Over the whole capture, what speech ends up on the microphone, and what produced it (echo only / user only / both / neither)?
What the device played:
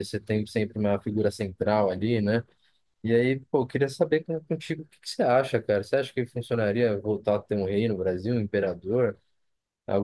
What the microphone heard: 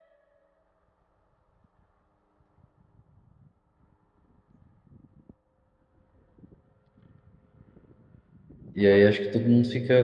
user only